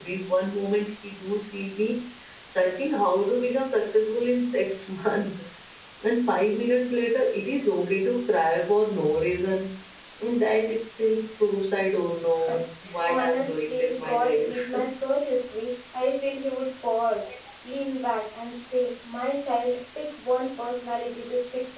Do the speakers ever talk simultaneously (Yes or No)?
Yes